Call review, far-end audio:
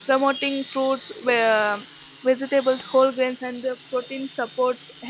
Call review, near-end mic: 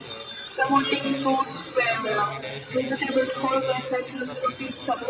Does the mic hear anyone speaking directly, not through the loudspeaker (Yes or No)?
Yes